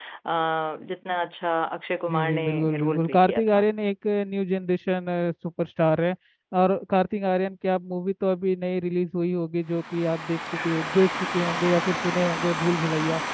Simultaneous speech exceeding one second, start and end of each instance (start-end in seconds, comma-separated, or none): 2.1-3.6